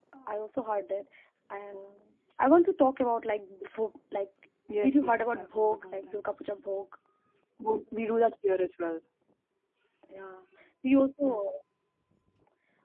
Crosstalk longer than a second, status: present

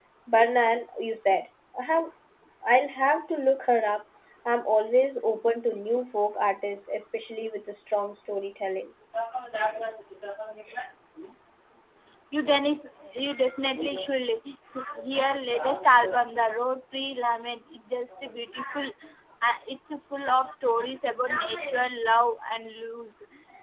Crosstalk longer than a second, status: none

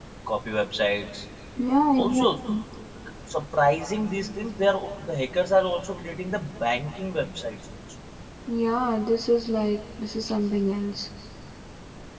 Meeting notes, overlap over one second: none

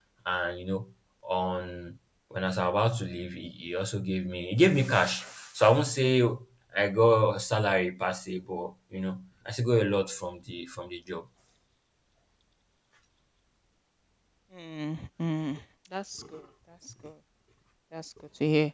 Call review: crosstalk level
none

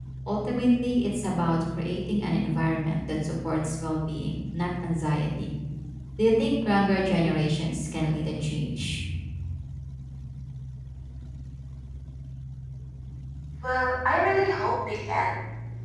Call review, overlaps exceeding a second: none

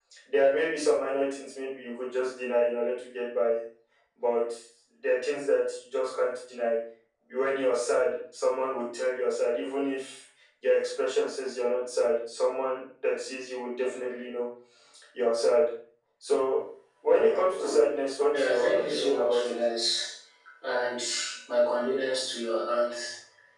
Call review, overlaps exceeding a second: present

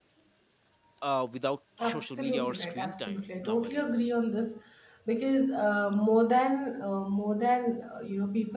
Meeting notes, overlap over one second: present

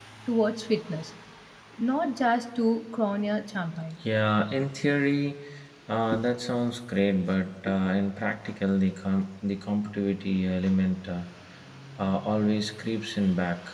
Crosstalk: none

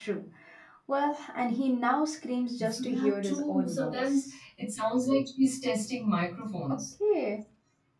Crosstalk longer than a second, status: present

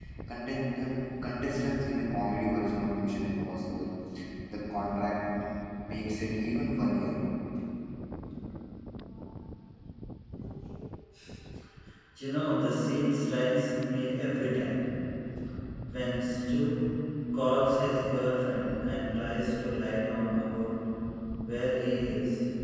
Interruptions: none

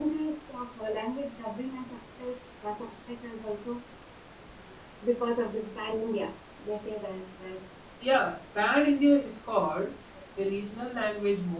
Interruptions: none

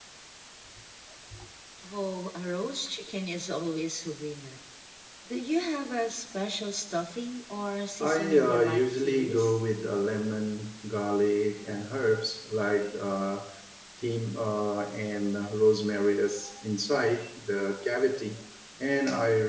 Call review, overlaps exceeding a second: present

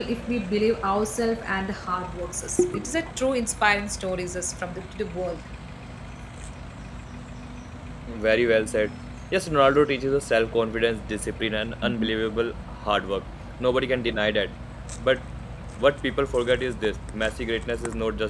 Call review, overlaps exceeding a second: none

